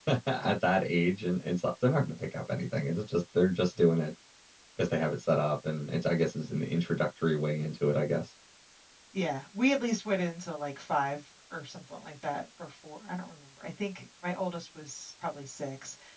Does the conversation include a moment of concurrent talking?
No

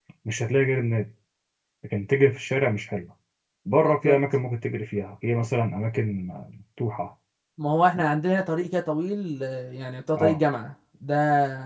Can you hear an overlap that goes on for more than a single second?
No

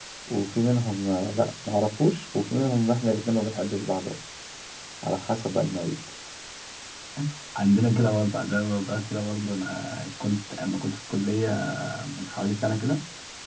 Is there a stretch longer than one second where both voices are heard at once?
No

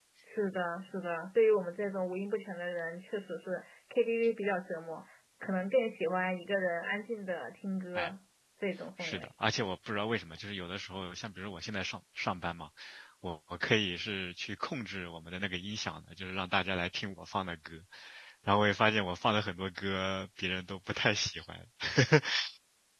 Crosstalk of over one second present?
No

